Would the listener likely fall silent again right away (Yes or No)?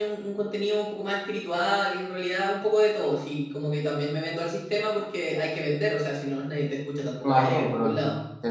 No